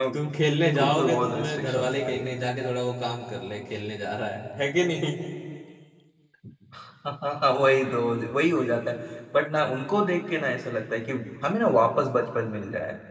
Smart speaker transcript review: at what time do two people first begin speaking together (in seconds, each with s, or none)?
0.8 s